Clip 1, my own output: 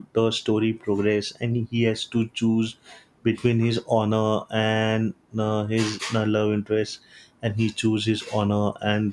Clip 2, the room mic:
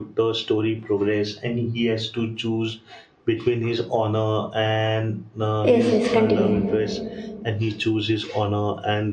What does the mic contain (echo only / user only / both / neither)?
both